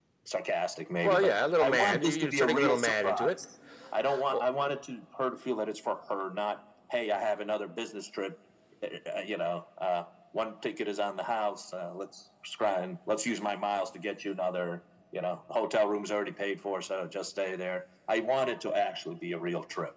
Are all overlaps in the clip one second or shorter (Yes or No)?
No